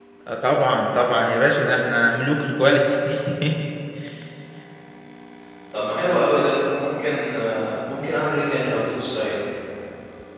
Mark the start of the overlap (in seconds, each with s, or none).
none